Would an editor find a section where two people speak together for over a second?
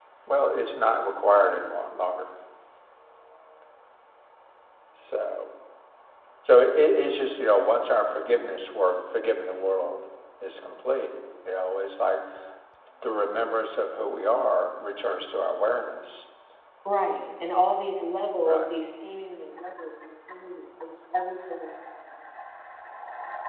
No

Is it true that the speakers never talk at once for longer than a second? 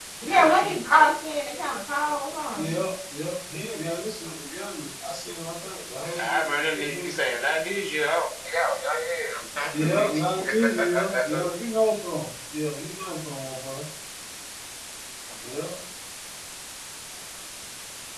No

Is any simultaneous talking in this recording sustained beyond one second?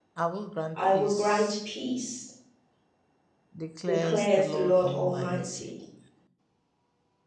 Yes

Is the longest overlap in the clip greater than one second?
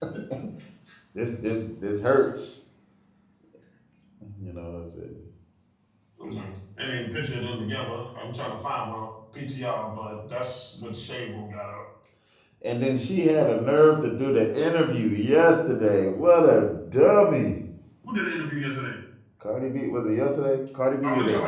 No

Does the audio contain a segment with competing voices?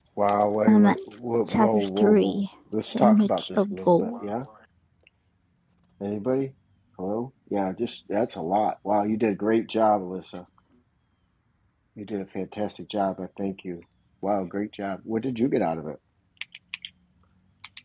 Yes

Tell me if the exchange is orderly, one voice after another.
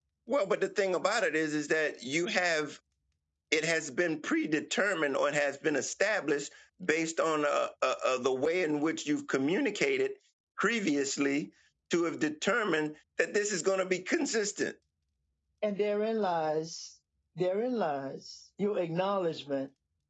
Yes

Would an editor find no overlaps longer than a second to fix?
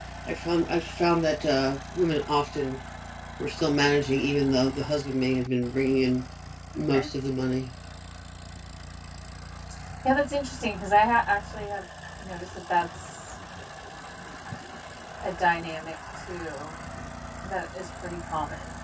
Yes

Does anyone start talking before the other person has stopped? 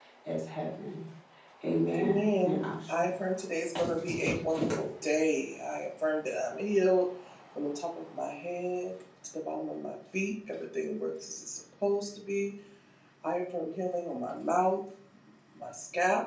Yes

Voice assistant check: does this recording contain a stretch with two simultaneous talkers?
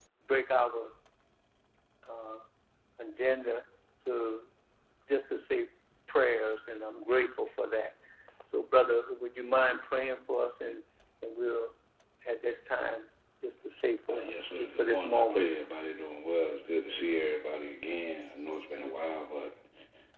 Yes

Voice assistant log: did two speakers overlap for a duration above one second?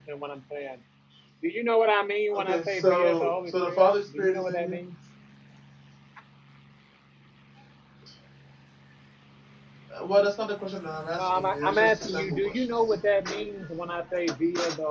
Yes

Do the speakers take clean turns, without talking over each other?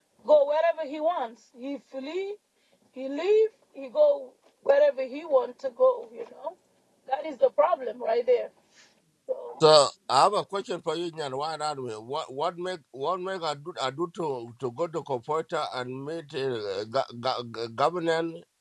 Yes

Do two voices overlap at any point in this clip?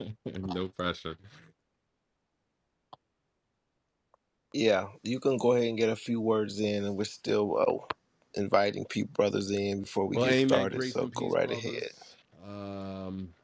Yes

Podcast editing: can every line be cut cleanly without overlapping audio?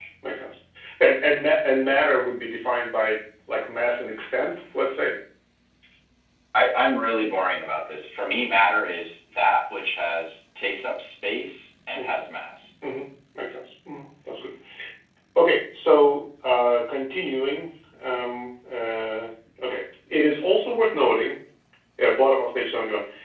Yes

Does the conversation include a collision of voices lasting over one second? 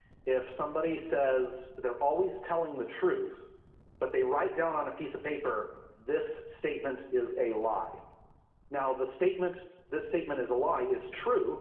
No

